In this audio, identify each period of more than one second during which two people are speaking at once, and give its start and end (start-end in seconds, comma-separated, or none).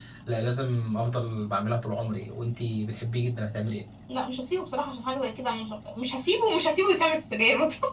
none